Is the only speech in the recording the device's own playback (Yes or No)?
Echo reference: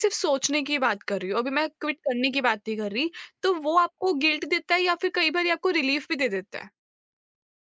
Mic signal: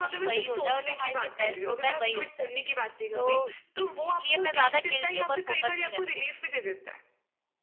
No